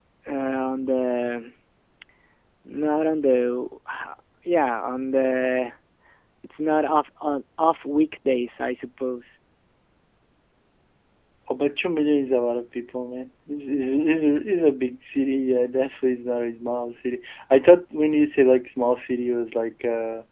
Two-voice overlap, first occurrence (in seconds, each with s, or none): none